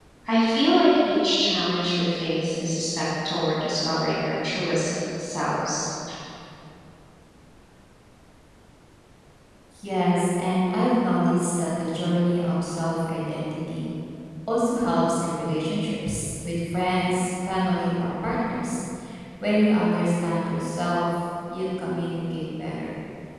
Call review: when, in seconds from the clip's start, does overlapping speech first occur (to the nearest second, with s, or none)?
none